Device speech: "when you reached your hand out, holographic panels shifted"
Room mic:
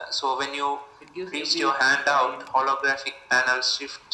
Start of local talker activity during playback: 1.0 s

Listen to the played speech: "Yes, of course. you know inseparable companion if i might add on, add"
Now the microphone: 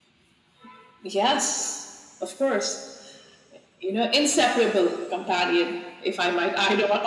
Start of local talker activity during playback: none

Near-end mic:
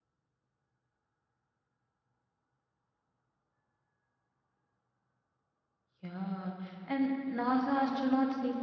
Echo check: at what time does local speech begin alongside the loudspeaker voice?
6.0 s

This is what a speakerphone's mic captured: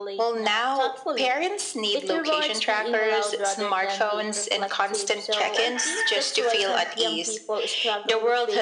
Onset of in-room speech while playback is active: none

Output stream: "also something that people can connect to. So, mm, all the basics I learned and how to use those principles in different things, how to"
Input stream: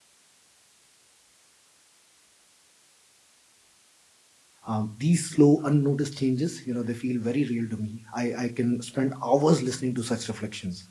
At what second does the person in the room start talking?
4.7 s

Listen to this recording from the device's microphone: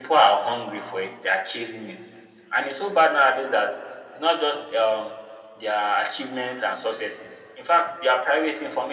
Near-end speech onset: none

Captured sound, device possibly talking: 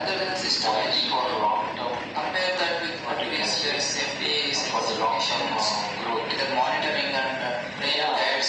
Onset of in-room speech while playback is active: none

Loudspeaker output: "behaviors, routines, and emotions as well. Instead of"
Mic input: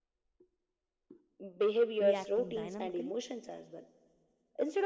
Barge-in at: 2.0 s

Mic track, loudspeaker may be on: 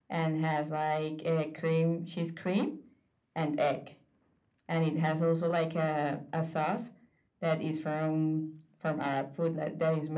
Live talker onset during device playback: none

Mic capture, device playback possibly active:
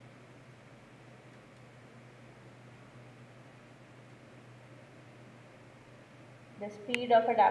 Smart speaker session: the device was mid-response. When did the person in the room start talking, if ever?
6.6 s

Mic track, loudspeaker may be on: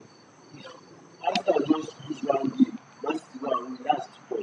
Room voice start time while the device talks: none

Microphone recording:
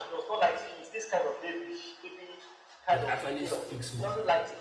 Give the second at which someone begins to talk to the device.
2.9 s

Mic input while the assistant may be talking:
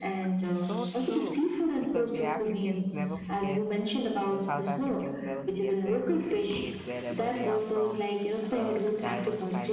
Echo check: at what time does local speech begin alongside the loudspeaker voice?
0.5 s

